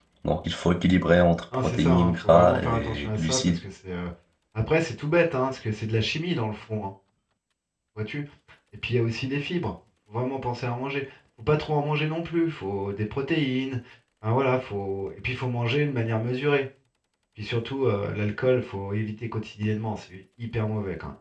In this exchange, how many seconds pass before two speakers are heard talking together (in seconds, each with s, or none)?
1.5 s